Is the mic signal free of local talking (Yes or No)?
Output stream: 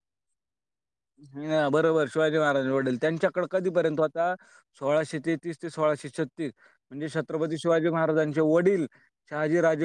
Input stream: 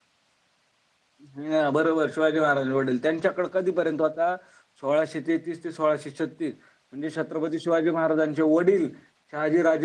Yes